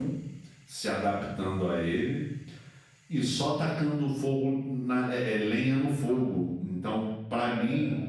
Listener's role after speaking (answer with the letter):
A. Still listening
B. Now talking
A